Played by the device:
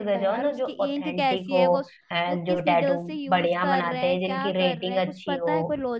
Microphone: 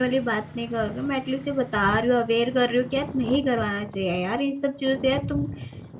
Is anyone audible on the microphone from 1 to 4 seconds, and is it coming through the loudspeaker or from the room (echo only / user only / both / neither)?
user only